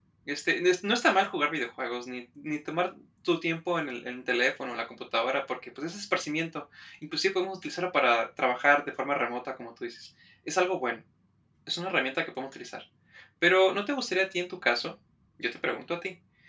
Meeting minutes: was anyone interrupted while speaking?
No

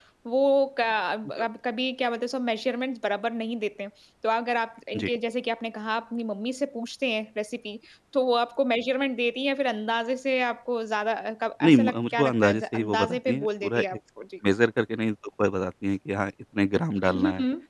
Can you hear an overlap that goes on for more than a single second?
Yes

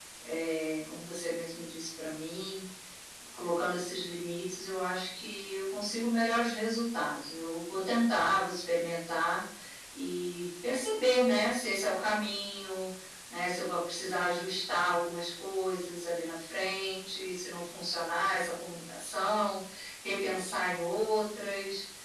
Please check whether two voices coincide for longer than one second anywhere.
No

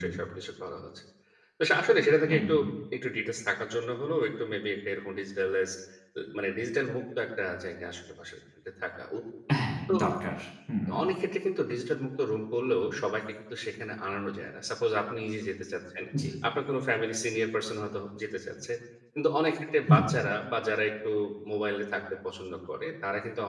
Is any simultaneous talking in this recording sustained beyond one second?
No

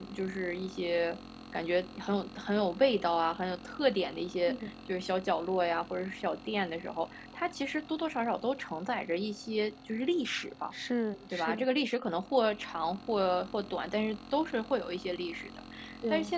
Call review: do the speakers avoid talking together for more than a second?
Yes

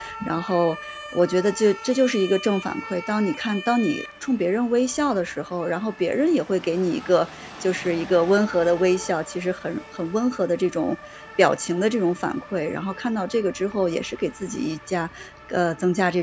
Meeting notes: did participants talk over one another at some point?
No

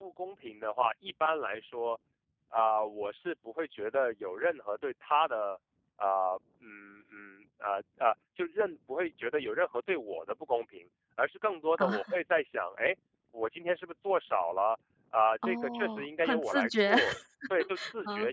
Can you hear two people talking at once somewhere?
Yes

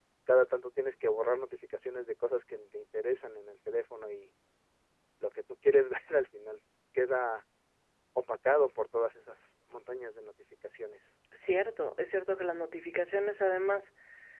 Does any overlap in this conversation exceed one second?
No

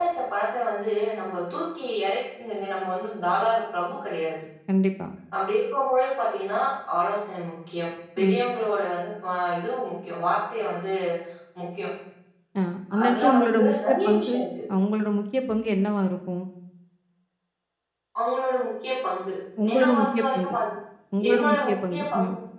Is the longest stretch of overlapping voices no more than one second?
No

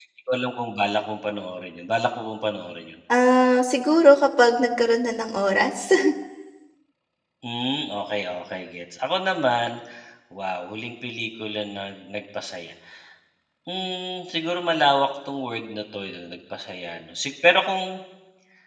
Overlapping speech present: No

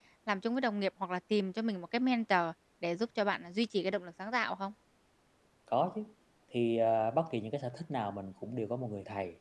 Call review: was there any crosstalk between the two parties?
No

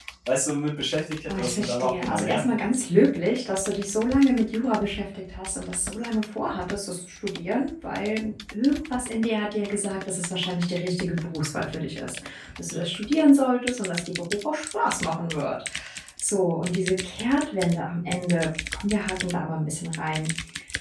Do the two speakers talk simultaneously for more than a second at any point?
Yes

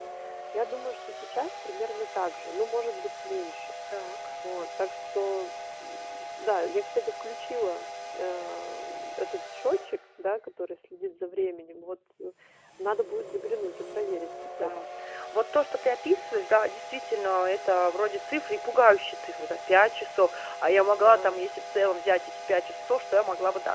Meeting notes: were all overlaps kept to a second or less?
Yes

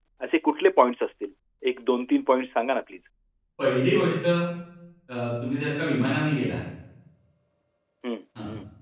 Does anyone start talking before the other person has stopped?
No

